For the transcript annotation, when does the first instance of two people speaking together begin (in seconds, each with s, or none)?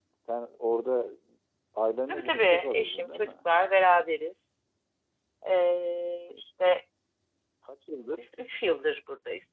2.1 s